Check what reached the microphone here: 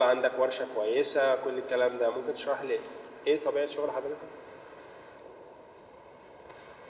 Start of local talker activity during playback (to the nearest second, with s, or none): none